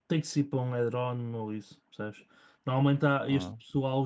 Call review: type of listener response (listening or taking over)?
listening